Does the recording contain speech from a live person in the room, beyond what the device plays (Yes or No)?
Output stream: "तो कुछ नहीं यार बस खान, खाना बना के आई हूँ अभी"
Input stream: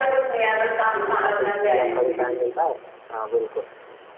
Yes